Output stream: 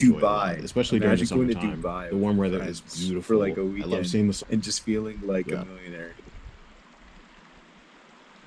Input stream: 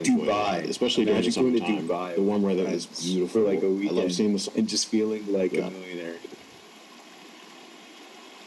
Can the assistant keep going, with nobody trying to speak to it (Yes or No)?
Yes